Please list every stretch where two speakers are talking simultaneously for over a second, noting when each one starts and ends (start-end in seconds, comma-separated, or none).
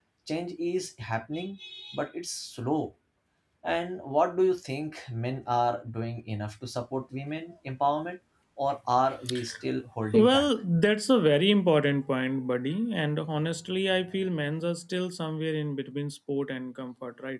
none